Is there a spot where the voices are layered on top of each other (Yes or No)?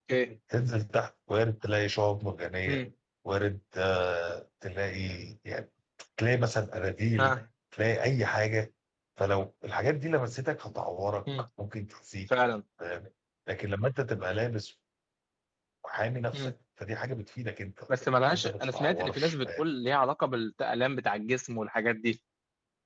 Yes